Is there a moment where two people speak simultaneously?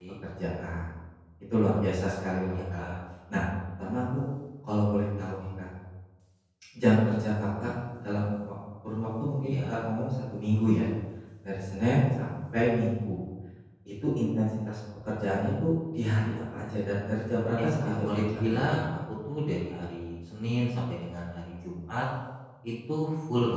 Yes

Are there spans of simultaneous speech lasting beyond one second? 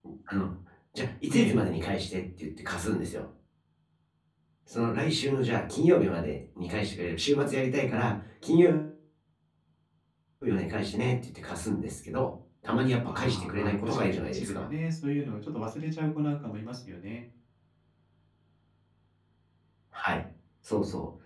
Yes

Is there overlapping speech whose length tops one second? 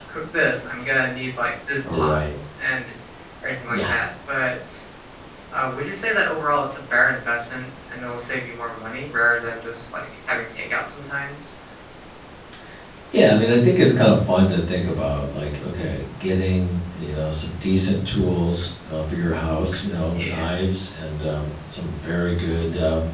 No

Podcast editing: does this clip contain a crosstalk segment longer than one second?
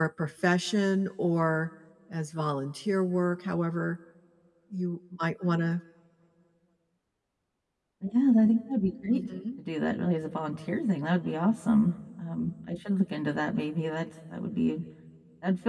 No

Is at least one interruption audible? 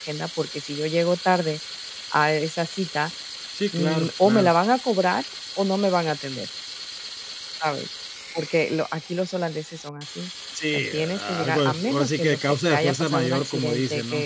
Yes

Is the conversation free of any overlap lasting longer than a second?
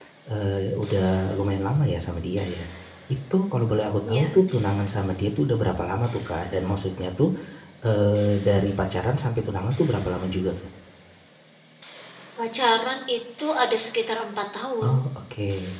Yes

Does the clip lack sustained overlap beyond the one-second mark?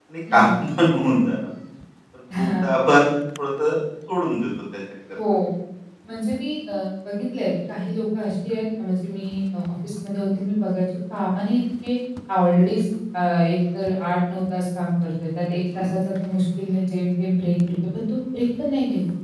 Yes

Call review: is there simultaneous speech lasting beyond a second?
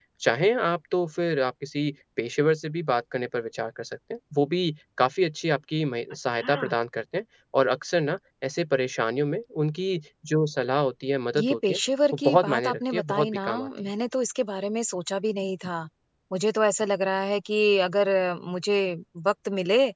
Yes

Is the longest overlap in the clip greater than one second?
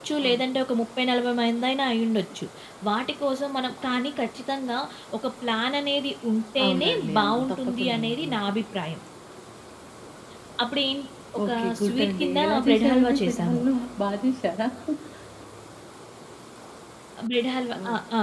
Yes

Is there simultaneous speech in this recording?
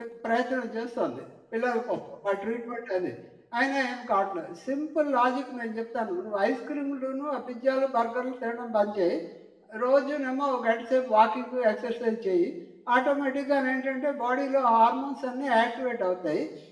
No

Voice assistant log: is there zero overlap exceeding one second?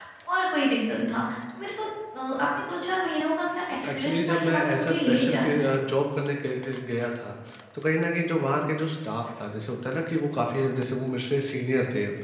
No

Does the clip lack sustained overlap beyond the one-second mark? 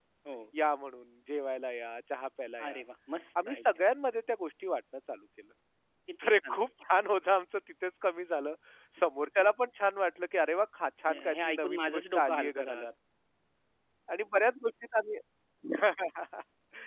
No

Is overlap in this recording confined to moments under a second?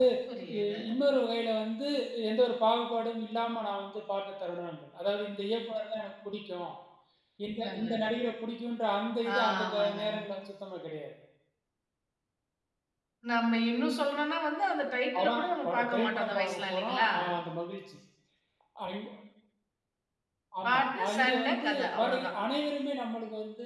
No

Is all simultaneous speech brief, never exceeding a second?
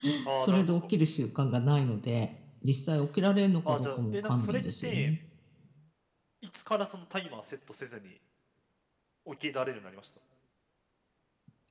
No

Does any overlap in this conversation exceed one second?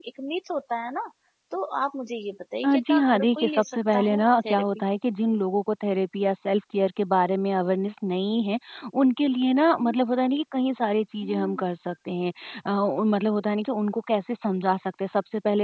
Yes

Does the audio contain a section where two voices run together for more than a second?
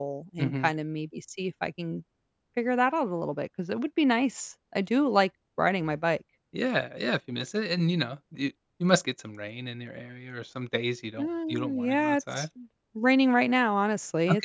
Yes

